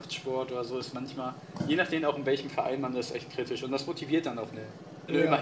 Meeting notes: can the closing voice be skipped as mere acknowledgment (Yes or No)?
Yes